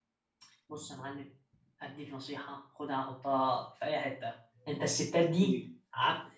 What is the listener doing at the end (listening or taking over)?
listening